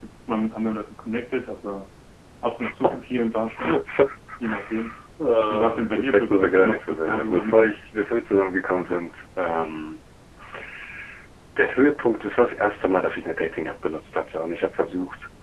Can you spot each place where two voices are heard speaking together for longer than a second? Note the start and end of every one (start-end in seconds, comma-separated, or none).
5.5-7.8